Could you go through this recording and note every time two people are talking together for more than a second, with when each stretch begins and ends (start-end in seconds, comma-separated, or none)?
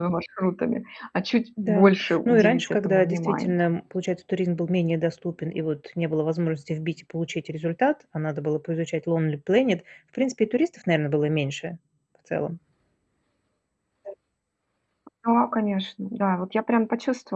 1.7-3.5